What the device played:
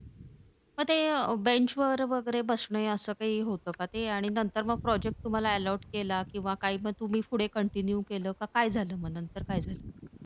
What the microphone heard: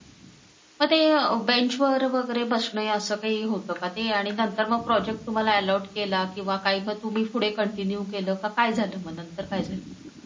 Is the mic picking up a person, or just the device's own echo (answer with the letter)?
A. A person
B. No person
B